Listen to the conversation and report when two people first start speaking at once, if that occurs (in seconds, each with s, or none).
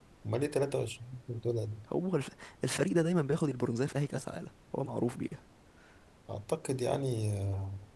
none